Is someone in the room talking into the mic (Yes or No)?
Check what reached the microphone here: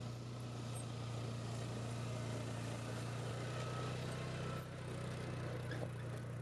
No